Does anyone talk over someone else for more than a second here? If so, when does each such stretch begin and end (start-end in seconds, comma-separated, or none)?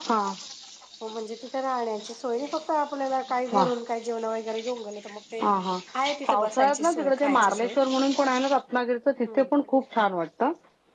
6.3-7.7